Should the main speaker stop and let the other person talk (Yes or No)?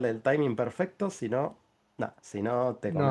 Yes